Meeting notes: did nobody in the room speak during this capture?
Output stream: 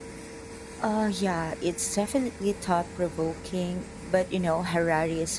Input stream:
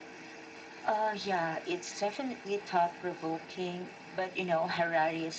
Yes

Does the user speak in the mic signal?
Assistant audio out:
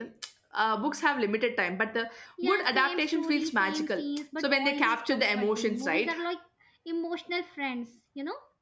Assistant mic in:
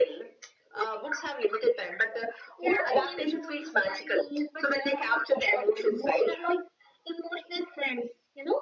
No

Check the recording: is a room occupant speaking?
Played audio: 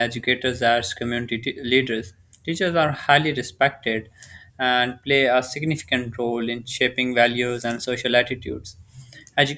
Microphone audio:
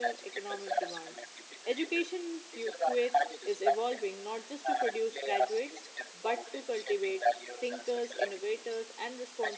Yes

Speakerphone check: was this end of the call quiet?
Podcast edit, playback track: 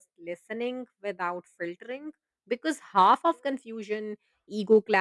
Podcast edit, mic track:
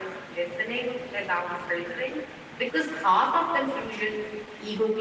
Yes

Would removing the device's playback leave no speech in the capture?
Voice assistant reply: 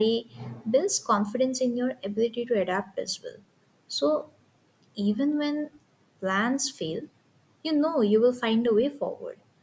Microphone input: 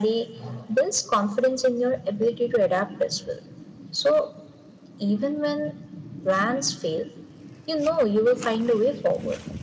Yes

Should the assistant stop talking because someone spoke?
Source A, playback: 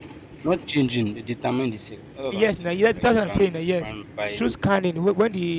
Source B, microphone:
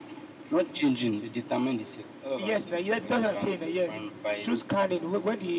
No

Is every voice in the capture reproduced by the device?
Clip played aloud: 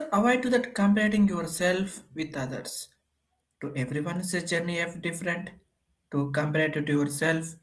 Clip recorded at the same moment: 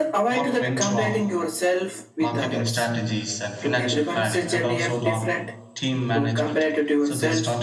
No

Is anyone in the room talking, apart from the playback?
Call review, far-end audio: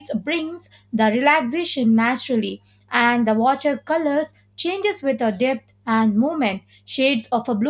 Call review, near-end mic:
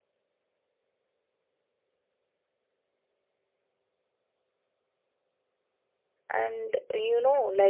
Yes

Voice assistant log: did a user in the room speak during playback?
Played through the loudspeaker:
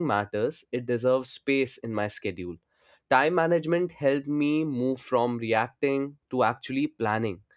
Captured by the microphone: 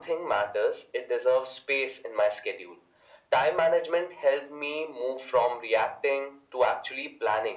No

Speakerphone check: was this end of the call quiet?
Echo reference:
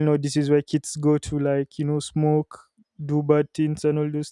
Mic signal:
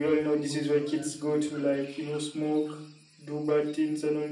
No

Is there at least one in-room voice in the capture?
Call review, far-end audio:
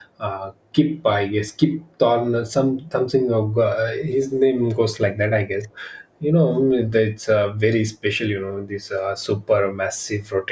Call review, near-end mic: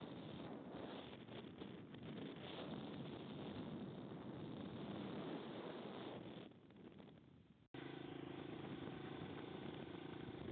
No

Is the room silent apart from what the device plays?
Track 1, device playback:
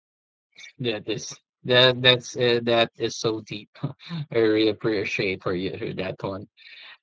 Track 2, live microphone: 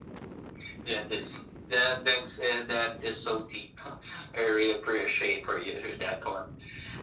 Yes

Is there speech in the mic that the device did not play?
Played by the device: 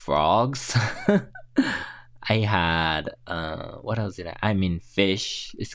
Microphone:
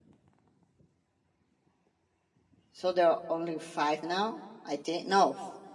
Yes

